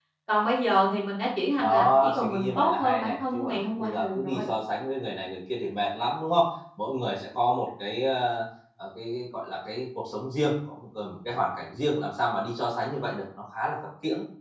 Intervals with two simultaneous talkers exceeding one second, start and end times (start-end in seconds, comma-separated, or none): 1.6-4.4